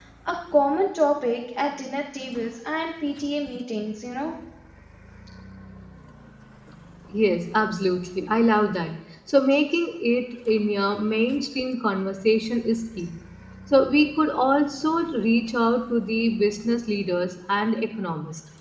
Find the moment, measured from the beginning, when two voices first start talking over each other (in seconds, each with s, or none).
none